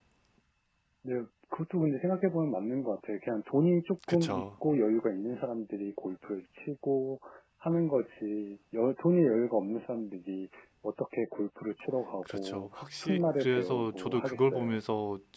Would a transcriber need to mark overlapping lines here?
Yes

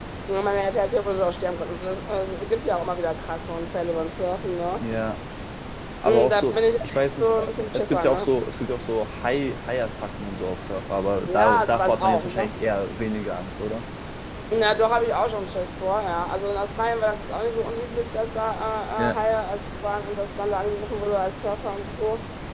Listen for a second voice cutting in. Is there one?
Yes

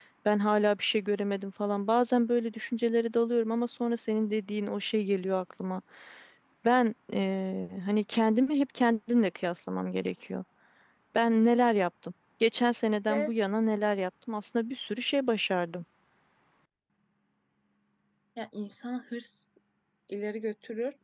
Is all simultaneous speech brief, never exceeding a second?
Yes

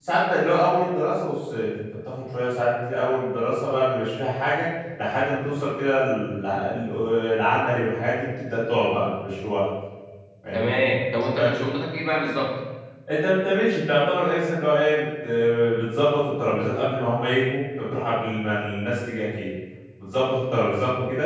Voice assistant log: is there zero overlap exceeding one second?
Yes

